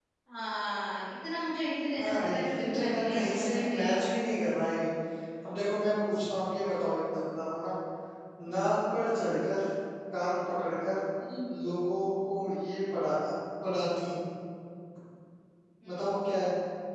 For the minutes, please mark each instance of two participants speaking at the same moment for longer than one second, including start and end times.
2.0-4.0

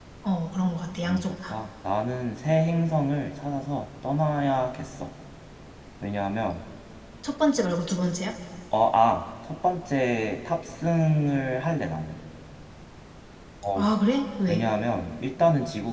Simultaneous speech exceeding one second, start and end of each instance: none

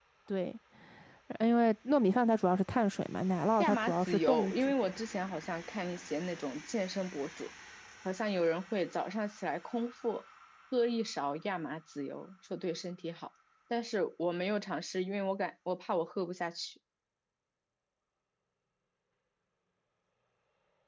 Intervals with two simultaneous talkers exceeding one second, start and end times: 3.6-5.0

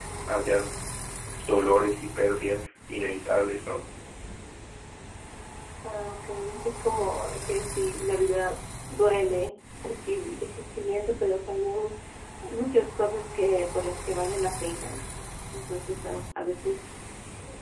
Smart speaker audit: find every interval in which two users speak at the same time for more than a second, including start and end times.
none

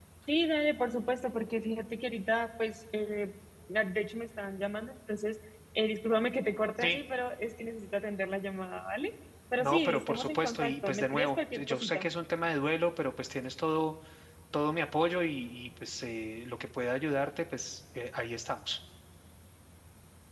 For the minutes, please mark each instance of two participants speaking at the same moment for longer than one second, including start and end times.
9.6-12.1

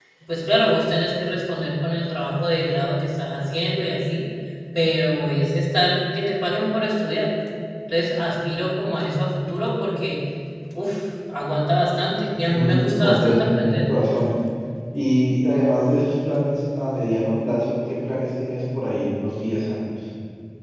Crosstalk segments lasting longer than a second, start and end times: 12.5-13.9

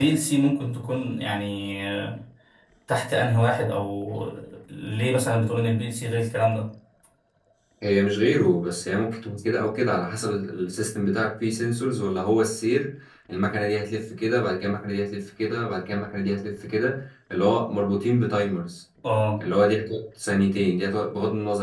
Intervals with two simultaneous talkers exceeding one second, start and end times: none

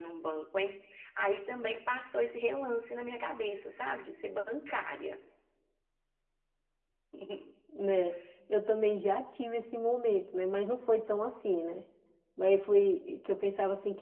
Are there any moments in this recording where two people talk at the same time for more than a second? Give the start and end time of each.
none

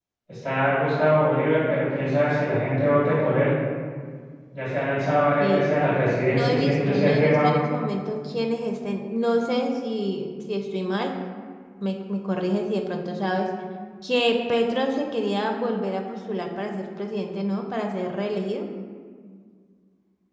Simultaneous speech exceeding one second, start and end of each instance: 6.3-7.5

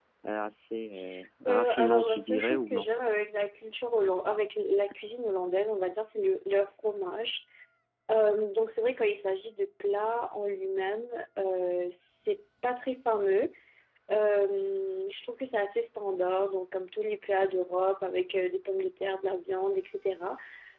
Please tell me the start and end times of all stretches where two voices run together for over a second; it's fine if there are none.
1.5-2.9

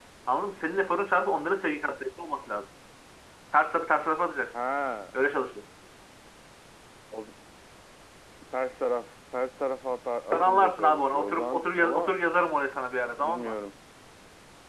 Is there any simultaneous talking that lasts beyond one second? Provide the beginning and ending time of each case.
10.3-12.1

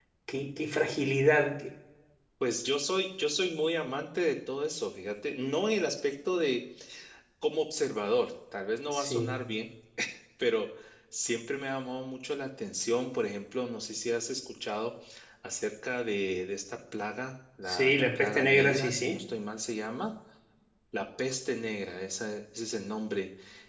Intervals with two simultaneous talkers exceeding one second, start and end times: 17.7-19.3

